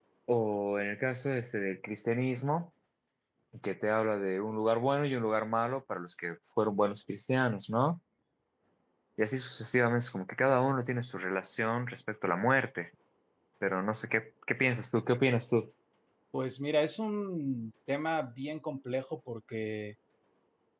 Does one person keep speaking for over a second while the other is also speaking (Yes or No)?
No